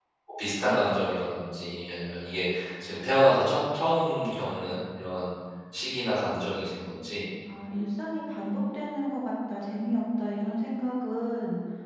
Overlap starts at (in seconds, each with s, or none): none